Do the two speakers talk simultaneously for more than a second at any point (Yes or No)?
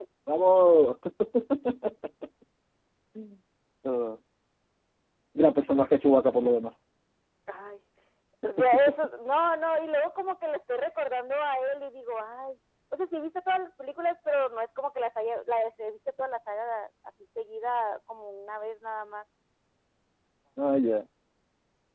No